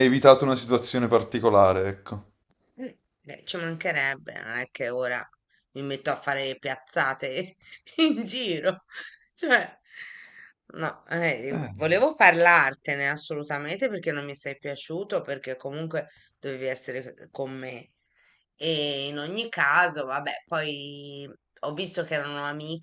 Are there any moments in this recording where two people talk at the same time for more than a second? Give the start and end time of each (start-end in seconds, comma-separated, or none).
none